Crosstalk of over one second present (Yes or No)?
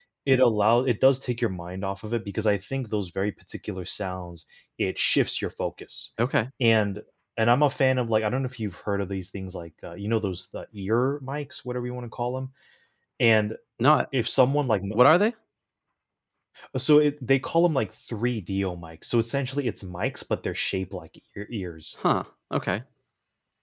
No